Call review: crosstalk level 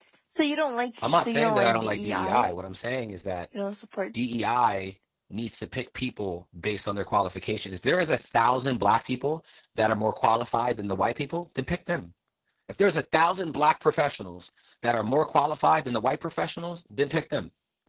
present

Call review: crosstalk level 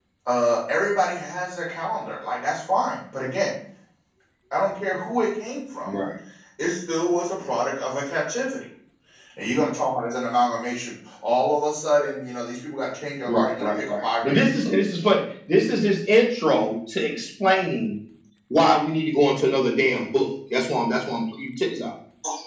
present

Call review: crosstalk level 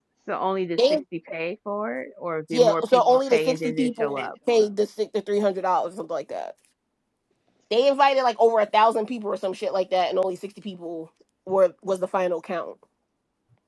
present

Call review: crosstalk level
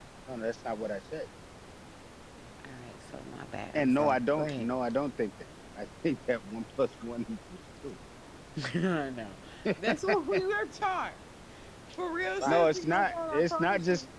present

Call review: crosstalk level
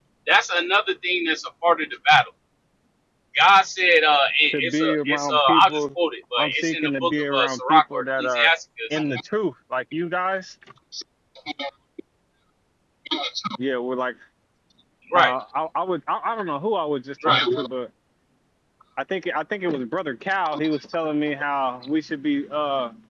present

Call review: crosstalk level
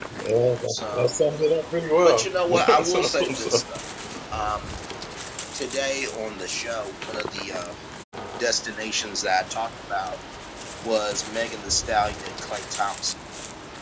present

